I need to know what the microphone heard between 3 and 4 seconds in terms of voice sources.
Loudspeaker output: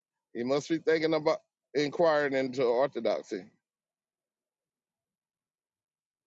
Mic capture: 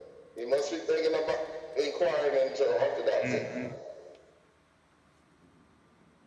both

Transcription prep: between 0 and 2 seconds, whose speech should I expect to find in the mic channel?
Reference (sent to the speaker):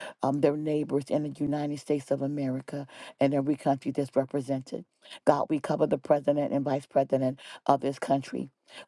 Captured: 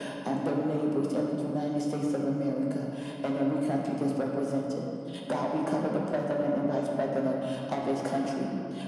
echo only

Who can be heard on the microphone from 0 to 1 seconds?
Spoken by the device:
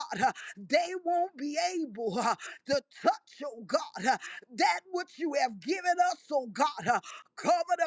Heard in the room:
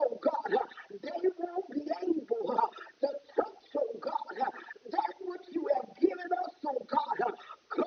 echo only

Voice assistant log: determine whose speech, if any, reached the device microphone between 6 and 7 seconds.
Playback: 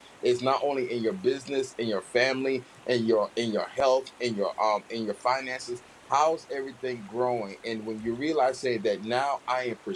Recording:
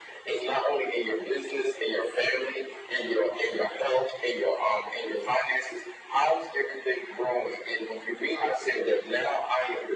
echo only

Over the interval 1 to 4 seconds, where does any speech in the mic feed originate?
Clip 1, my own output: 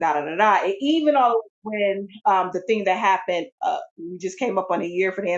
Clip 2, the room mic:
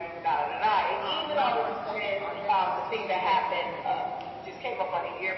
both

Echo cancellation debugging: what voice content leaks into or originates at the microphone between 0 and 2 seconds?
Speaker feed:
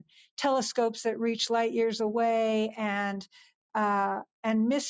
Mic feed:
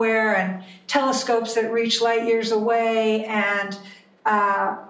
echo only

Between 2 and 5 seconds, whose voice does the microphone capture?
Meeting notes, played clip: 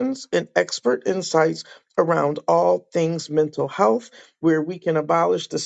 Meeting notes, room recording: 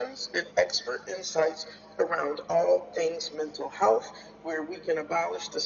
echo only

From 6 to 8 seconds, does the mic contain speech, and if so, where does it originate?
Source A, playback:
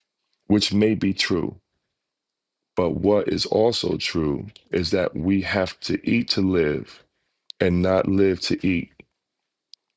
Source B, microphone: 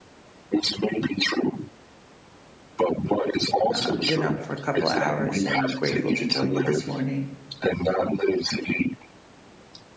both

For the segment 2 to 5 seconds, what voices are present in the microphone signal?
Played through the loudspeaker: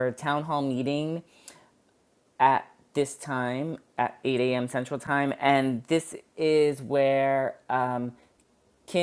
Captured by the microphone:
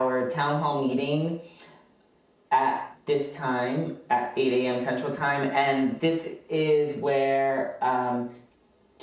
echo only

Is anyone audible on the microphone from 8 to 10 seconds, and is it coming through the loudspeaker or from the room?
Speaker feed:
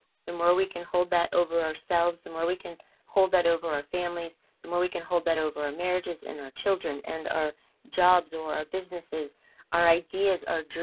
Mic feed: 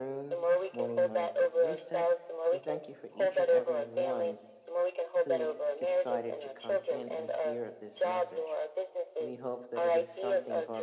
both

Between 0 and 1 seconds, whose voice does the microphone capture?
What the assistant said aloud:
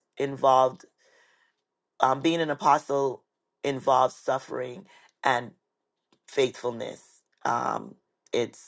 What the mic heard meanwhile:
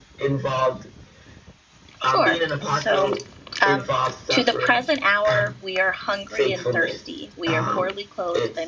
echo only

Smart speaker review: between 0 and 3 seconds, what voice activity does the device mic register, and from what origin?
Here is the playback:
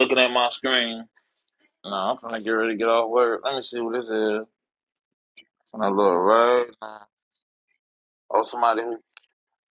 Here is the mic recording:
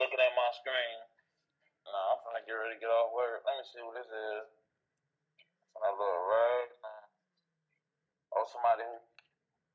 echo only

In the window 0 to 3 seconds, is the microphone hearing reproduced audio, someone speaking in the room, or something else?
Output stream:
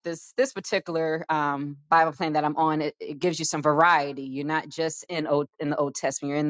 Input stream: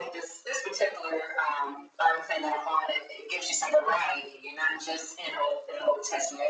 echo only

